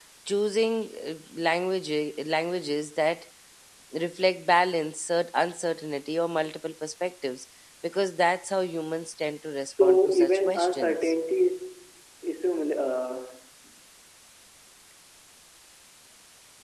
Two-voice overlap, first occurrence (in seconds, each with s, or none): 9.7 s